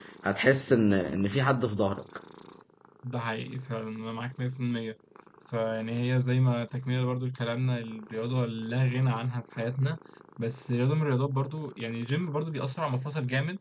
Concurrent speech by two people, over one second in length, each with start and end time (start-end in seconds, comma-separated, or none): none